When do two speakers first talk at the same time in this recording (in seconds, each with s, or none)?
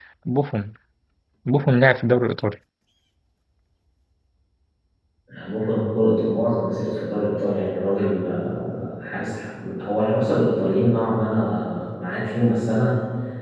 none